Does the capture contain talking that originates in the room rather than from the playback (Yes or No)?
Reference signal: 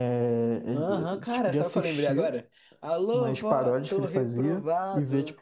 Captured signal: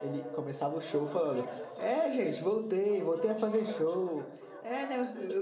Yes